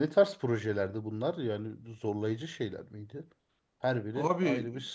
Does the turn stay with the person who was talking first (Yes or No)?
No